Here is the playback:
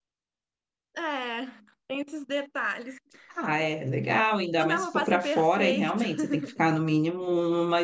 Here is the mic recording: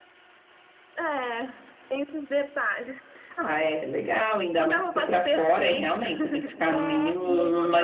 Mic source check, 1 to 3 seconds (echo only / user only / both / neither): echo only